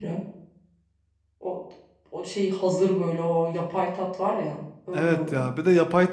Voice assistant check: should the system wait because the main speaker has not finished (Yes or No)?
No